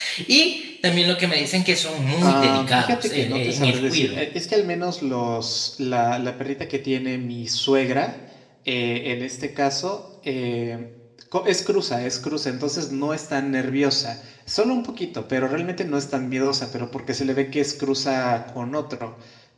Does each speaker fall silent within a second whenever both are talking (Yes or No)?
No